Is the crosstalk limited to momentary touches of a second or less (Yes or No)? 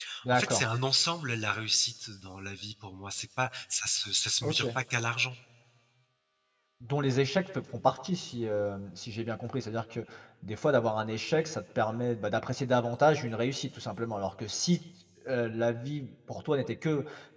Yes